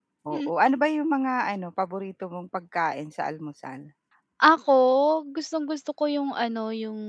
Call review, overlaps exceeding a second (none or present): none